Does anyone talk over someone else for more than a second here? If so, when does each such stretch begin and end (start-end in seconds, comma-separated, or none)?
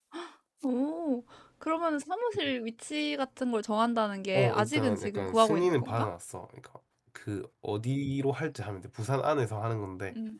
4.3-6.1